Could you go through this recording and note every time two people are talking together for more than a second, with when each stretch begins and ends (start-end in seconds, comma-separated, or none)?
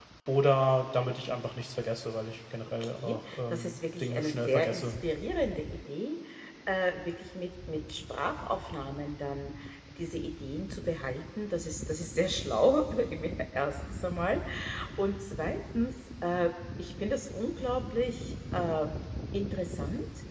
2.9-4.9